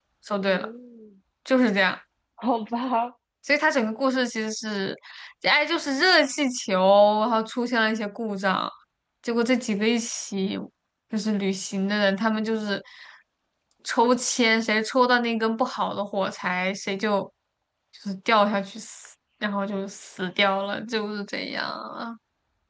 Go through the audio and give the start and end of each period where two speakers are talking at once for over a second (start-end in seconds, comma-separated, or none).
none